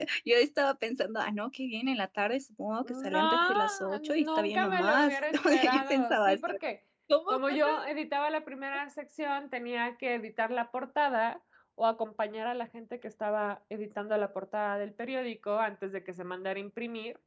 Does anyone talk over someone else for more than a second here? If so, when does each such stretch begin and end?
2.8-6.6

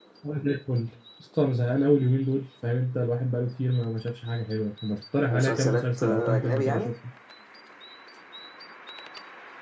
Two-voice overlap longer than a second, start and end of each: 5.3-6.9

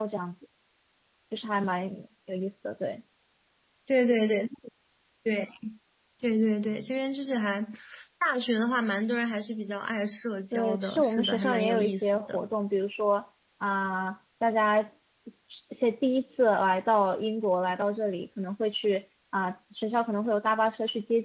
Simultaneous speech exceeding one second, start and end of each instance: 10.5-12.4

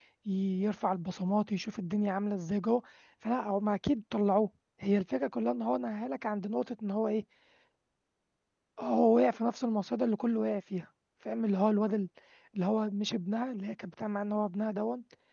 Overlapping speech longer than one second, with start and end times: none

